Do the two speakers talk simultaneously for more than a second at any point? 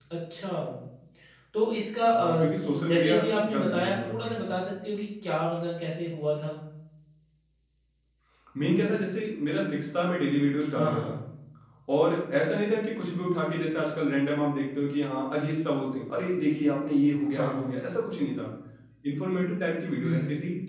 Yes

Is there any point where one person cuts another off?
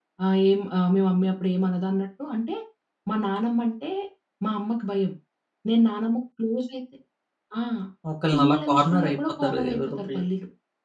Yes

